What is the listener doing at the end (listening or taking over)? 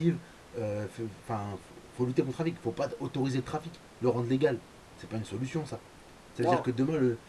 listening